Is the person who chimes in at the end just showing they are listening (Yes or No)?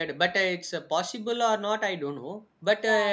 Yes